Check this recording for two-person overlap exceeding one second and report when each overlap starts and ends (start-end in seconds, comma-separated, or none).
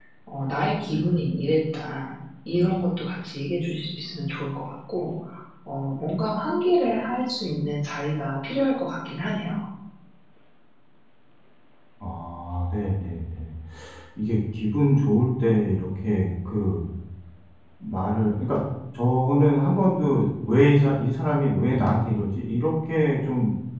none